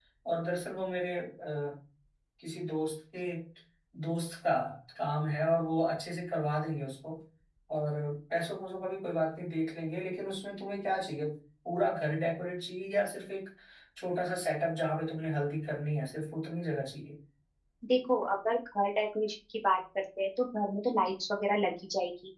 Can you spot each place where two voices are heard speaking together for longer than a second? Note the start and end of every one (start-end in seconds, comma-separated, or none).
none